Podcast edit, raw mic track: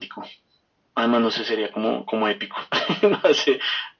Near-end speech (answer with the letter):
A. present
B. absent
B